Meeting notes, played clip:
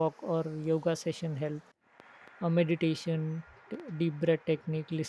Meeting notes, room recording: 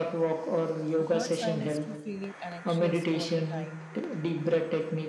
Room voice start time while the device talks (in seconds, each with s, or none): 1.0 s